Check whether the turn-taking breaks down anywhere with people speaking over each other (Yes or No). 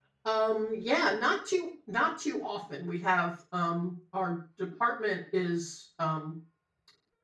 No